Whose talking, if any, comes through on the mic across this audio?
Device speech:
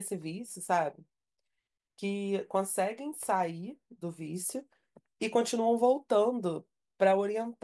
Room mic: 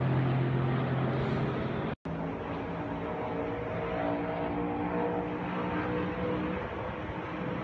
neither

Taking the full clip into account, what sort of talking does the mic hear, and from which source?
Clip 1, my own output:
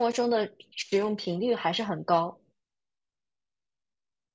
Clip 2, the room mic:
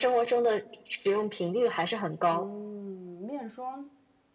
both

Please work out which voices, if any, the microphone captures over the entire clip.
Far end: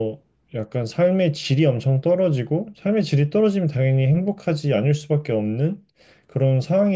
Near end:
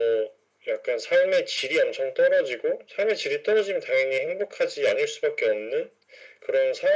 echo only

